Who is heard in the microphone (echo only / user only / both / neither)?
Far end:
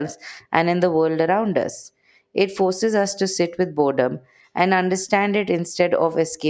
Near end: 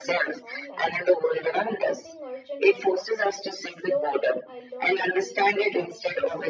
both